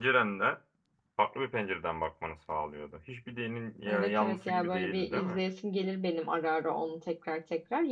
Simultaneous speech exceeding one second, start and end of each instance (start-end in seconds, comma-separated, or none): 3.9-5.4